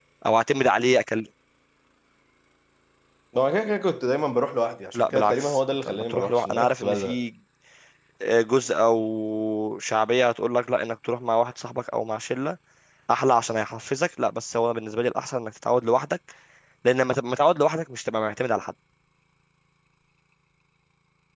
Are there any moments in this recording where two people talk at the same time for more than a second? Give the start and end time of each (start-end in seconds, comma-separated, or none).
4.9-7.2